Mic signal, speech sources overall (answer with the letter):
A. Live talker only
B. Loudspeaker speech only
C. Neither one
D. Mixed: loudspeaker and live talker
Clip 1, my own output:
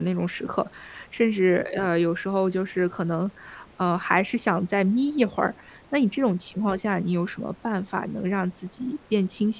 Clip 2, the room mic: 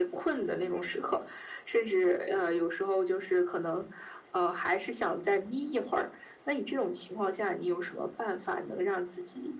B